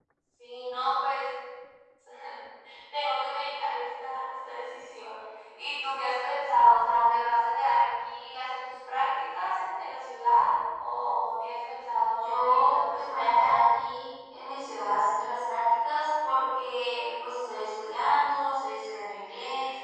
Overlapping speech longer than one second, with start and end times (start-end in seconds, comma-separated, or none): 12.2-13.6